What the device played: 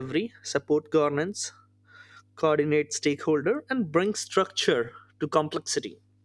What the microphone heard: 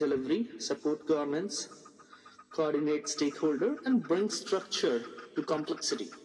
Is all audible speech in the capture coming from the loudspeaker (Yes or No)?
Yes